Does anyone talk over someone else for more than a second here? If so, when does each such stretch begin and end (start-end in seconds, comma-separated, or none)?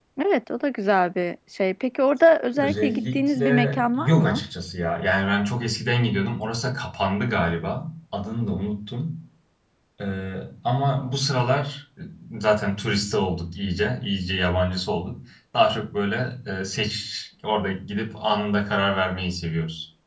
2.6-4.4